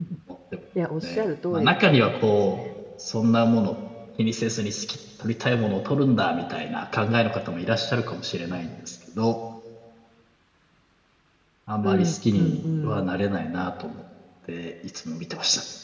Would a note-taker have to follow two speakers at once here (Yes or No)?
Yes